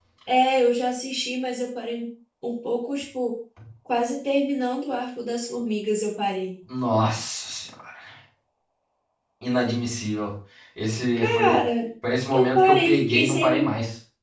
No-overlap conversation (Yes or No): No